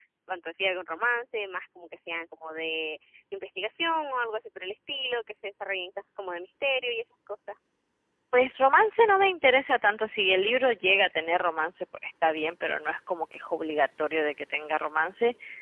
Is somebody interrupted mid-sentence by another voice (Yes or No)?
No